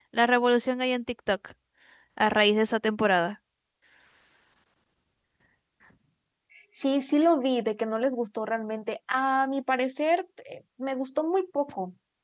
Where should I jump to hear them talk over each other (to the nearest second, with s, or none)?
none